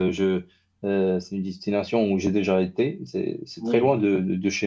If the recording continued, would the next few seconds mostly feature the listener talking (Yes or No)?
No